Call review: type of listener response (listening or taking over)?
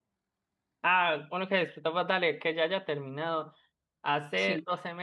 listening